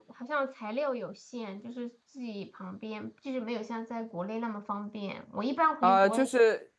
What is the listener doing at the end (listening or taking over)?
taking over